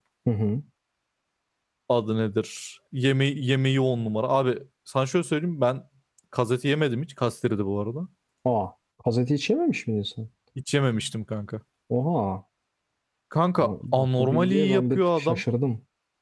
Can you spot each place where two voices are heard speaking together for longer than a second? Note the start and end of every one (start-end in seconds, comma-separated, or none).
13.6-15.4